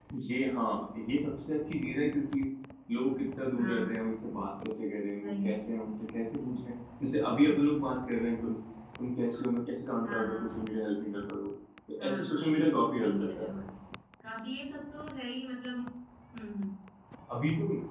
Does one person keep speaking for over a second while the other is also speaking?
Yes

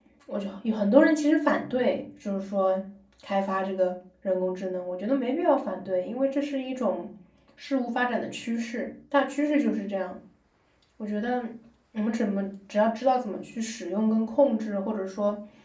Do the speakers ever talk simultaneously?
No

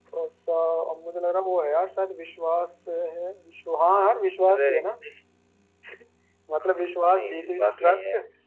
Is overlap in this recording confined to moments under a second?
No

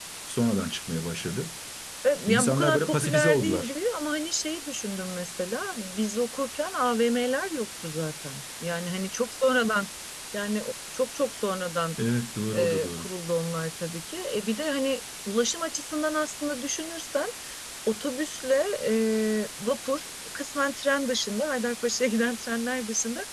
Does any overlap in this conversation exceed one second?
Yes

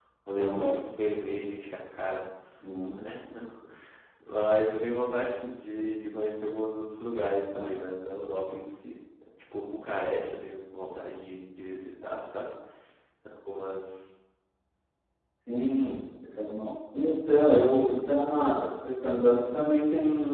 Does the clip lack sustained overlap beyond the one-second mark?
Yes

